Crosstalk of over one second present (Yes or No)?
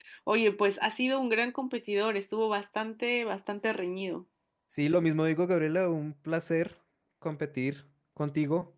No